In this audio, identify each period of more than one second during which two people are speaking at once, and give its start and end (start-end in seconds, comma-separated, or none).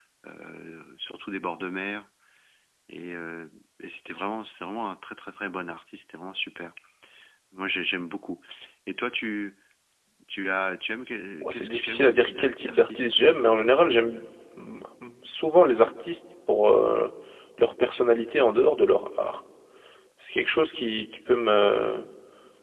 11.4-13.0